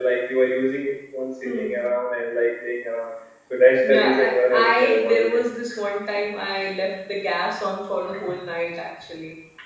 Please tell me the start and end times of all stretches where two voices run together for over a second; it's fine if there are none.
3.8-5.4

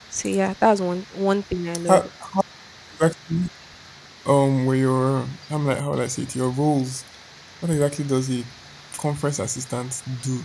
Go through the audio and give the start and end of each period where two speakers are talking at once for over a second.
none

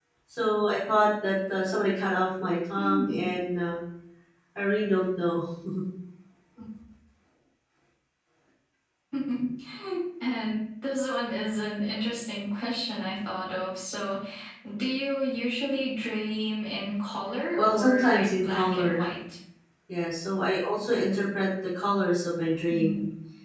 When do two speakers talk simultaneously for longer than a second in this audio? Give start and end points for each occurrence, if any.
17.6-19.1

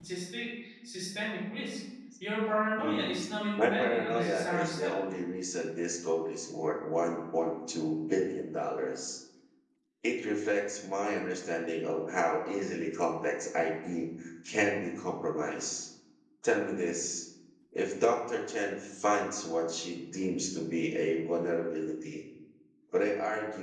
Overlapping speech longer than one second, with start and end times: 3.6-4.9

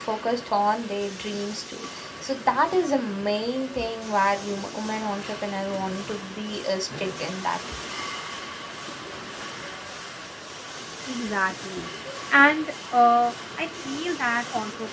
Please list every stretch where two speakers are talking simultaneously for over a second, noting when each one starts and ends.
none

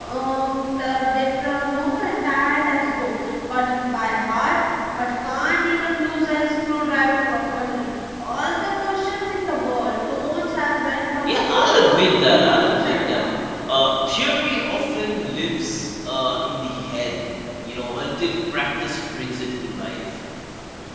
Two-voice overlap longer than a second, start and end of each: 11.3-13.2

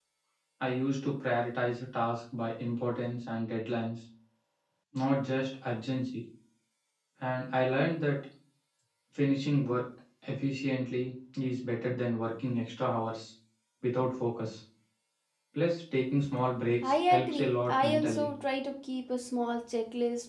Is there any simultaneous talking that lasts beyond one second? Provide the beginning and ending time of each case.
16.8-18.3

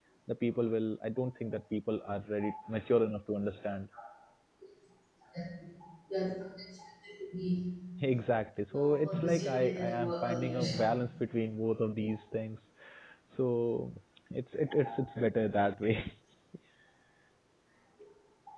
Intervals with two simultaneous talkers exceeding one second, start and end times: 8.7-10.6

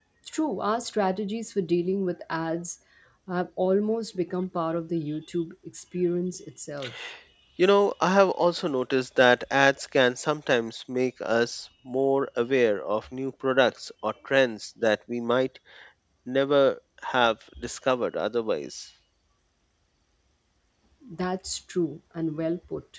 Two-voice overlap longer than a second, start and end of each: none

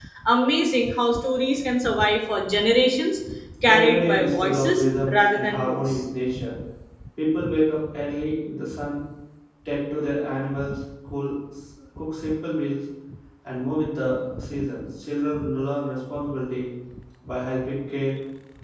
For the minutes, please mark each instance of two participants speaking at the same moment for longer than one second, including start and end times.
3.6-6.0

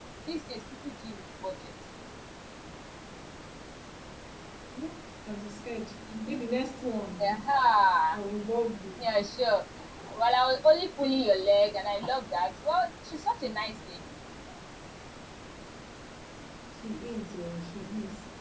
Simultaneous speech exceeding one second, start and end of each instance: none

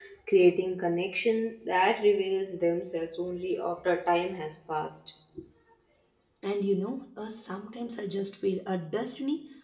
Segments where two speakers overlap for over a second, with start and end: none

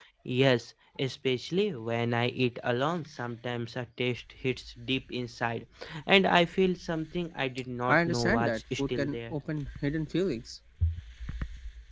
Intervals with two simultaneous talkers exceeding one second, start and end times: 7.9-9.4

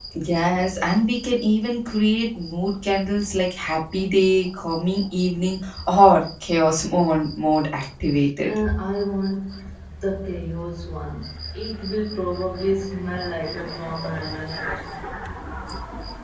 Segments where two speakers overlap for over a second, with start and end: none

